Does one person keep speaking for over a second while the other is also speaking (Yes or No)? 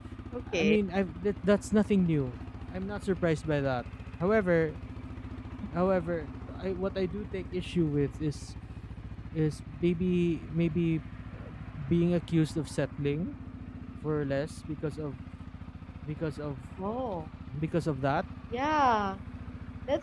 No